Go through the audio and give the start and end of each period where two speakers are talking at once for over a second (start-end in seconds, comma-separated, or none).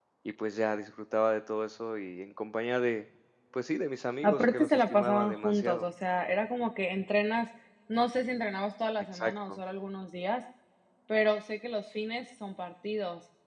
4.2-5.8